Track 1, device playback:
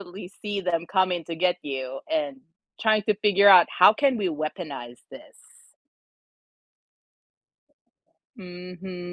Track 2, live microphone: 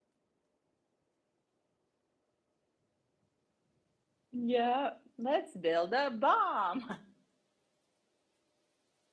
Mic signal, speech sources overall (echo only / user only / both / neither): user only